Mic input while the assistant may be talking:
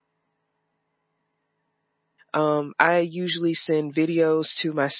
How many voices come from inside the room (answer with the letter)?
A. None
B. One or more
B